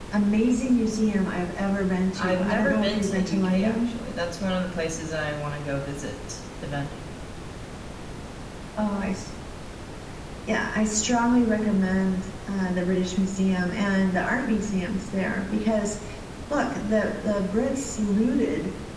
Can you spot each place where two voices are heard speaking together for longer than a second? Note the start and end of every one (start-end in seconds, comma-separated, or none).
2.1-4.0